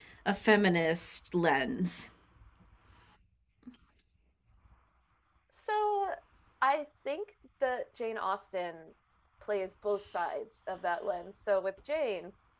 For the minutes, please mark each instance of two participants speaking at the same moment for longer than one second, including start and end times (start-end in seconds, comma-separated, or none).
none